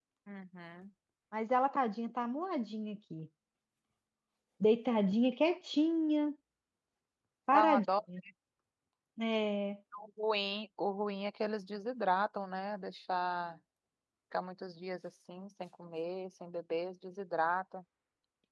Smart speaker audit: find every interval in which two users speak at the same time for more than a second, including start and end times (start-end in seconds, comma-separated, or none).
none